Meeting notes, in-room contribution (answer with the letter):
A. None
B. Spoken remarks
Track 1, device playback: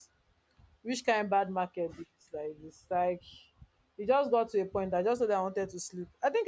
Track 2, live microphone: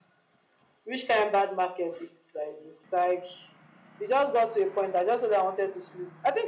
A